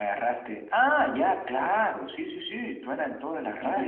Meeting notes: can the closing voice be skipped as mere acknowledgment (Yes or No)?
No